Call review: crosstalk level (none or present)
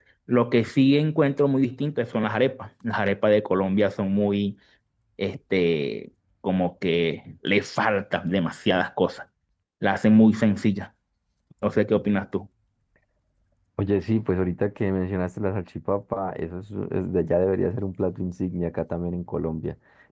none